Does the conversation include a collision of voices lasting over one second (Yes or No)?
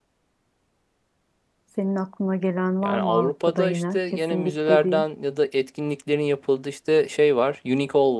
Yes